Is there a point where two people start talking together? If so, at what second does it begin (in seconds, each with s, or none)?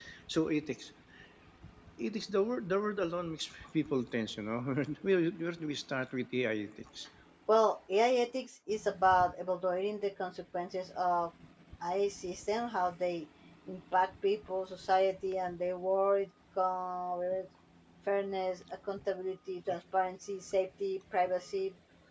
none